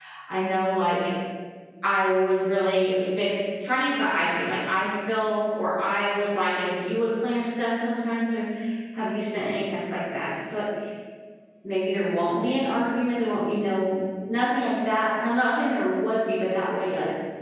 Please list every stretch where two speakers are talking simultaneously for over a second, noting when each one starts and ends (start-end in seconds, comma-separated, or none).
none